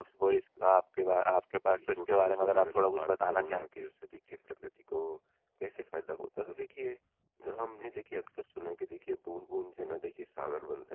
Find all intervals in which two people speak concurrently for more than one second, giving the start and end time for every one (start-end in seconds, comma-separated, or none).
1.8-3.7